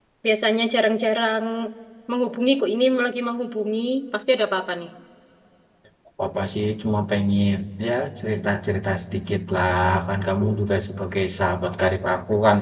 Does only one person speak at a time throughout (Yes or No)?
Yes